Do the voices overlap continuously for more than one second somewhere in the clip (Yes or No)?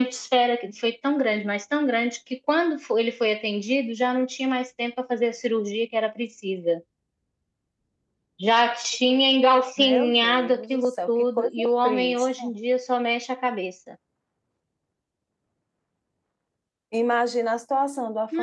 Yes